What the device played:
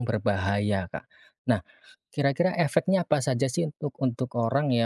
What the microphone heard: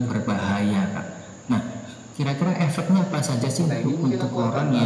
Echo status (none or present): present